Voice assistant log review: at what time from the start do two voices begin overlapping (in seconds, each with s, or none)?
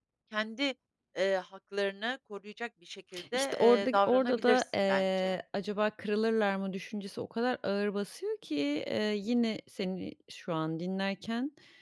3.1 s